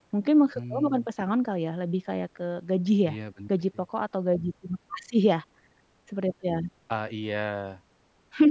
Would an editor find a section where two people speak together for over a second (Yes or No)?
No